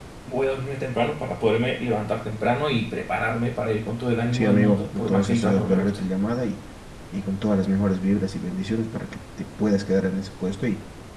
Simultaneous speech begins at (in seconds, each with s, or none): 4.3 s